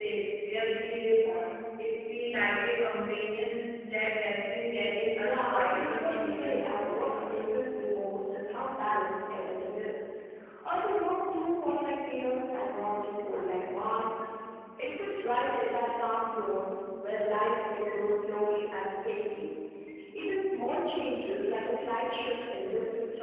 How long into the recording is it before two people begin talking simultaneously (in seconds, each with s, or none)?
5.2 s